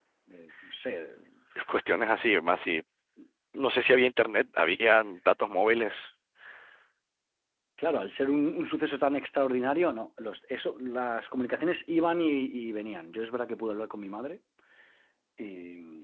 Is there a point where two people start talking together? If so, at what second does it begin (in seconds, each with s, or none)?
none